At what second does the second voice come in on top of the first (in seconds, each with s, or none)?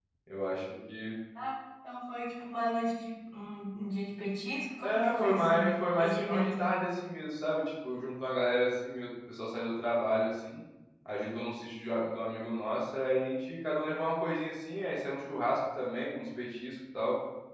4.8 s